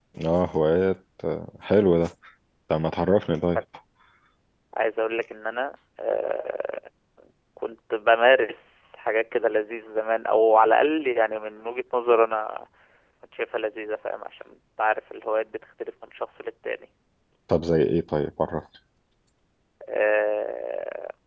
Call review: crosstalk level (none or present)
none